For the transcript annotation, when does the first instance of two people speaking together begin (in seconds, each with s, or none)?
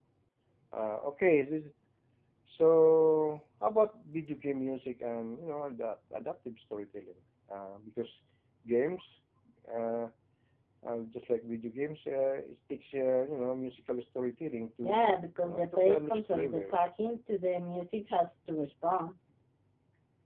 14.8 s